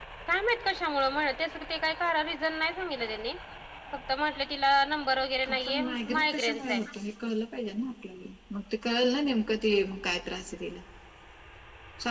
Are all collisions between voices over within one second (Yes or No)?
No